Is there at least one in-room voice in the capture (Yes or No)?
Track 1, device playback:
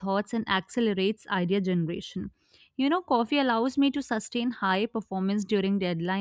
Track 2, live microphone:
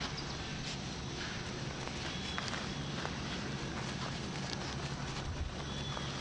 No